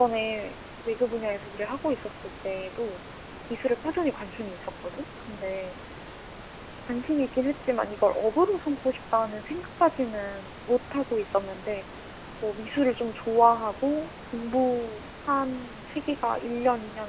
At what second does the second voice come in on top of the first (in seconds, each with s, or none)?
none